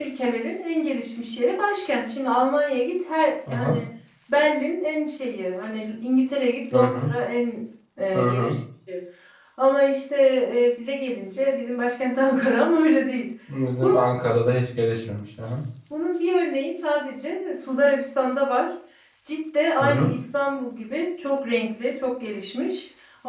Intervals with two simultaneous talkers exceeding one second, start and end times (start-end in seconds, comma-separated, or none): none